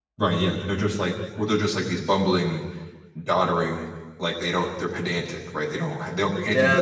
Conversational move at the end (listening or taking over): taking over